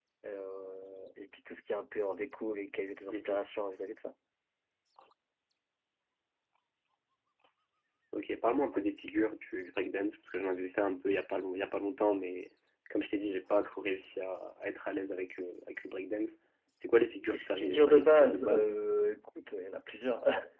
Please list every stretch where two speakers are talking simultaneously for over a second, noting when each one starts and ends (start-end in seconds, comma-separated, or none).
17.3-18.7